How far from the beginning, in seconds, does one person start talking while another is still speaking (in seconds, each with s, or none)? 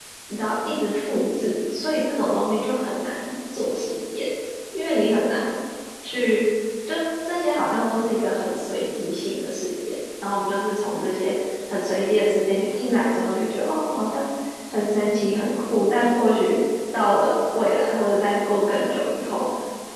none